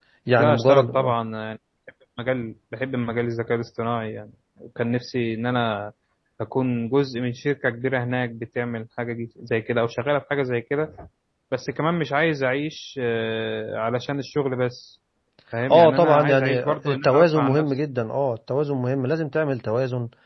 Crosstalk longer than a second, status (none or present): present